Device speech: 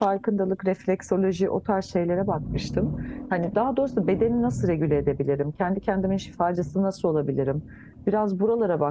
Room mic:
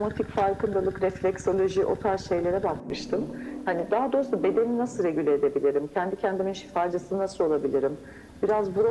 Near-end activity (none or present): none